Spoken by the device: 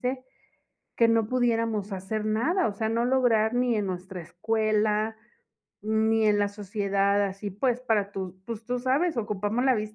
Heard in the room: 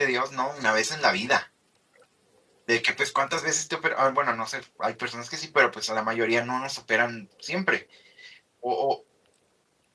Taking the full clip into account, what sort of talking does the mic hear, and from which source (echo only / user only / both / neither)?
user only